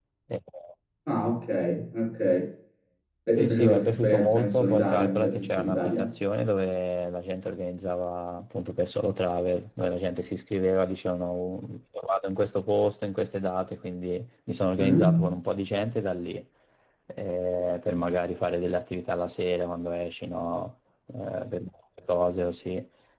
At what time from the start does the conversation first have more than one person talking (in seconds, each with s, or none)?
3.4 s